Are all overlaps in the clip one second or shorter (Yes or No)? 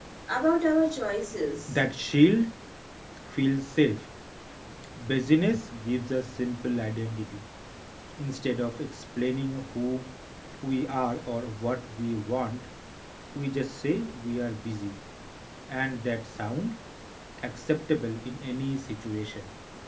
Yes